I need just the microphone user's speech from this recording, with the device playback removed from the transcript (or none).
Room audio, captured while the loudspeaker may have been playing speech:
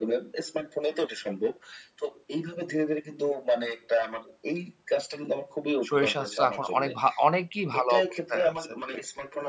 শরীর স্বাস্থ্য এখন অনেক ভা অনেকই ভালো অবস্থায় আছে।